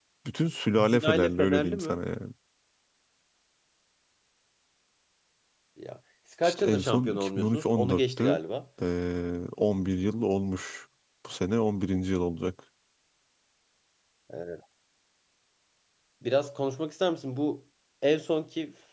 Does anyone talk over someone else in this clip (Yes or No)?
Yes